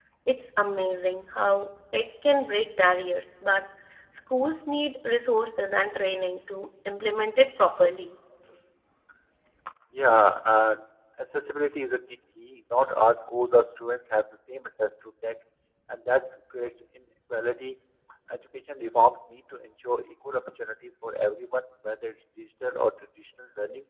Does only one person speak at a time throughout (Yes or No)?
Yes